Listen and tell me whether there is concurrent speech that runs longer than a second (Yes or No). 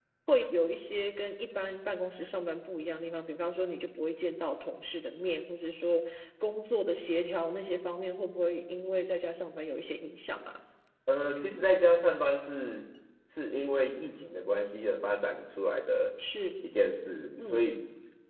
No